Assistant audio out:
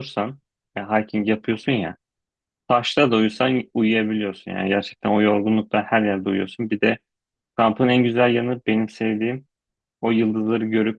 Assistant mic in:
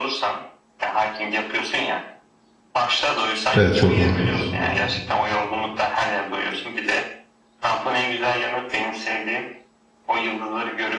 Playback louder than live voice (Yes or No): No